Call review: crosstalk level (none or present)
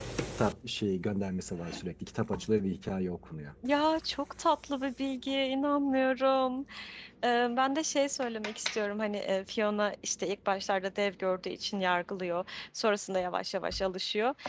none